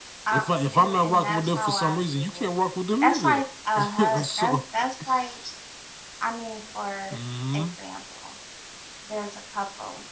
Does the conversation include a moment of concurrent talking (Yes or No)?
Yes